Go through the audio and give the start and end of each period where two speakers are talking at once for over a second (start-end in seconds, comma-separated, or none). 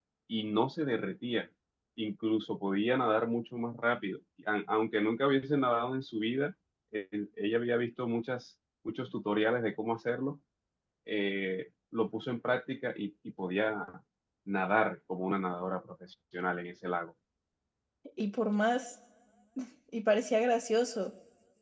none